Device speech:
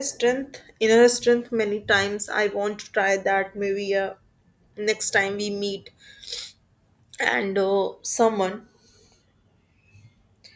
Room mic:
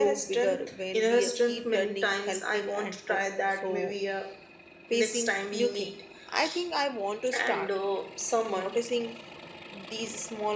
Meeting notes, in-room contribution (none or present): present